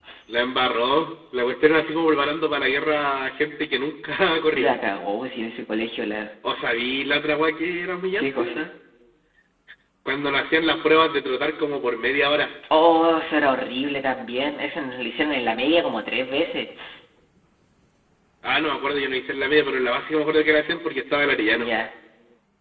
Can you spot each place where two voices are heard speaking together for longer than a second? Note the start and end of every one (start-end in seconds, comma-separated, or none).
none